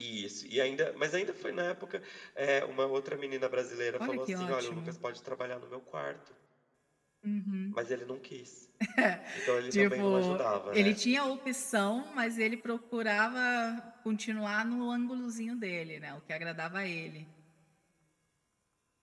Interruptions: present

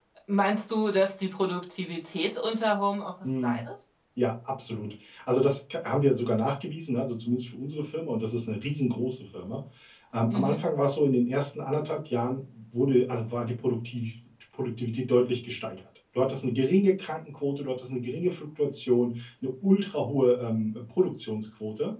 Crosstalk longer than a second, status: none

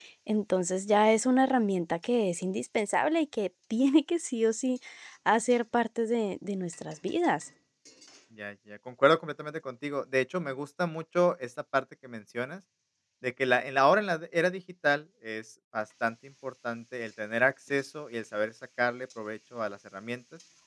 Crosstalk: none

